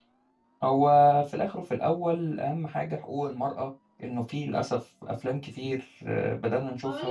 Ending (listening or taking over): taking over